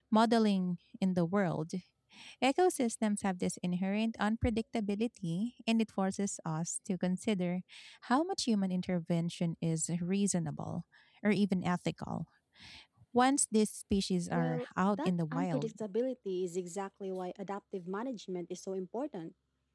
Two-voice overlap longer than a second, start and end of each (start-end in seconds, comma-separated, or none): 14.3-15.7